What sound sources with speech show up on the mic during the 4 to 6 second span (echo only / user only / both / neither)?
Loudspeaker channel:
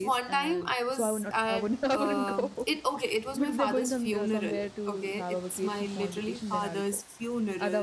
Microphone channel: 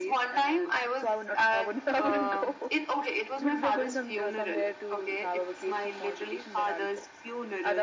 echo only